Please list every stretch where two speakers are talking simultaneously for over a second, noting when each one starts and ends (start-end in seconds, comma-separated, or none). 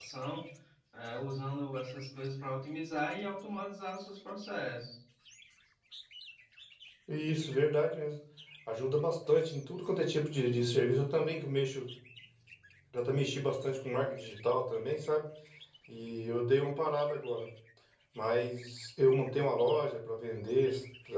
none